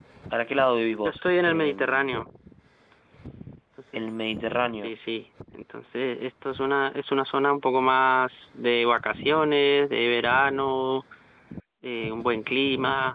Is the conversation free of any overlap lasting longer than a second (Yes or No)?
No